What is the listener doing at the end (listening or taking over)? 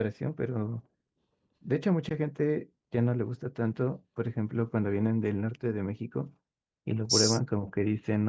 listening